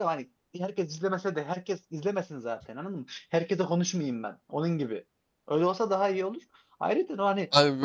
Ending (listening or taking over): taking over